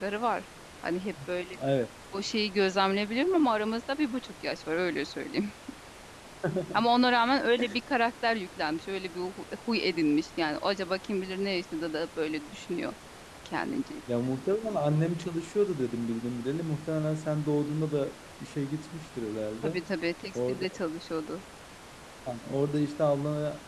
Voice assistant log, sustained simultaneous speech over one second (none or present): none